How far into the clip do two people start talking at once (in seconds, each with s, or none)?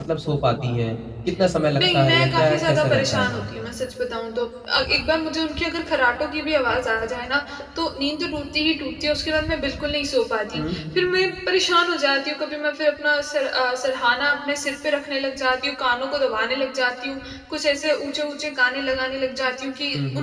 1.8 s